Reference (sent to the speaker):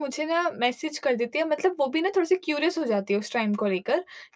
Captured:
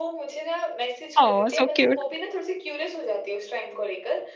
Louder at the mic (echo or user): user